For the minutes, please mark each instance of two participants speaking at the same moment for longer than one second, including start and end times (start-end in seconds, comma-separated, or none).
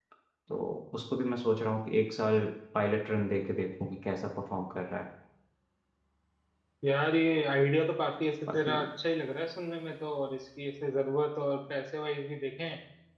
none